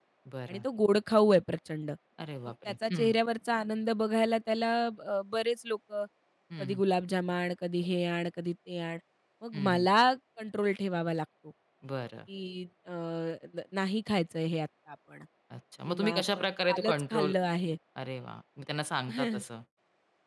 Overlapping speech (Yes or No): Yes